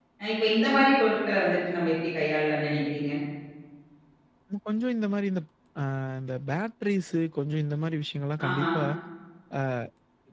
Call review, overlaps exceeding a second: none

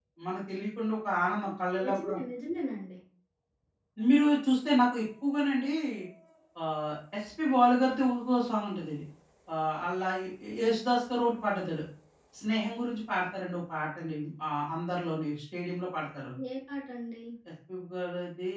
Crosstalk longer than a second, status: none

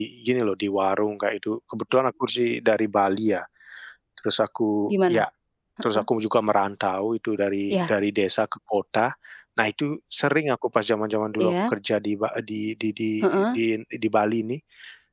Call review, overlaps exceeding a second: none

